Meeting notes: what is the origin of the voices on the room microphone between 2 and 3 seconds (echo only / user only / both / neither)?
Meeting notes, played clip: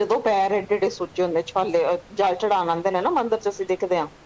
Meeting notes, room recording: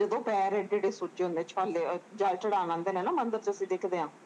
echo only